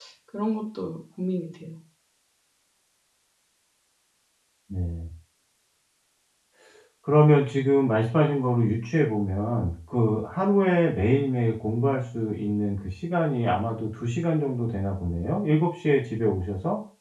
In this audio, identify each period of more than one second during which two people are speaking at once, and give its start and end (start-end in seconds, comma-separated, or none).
none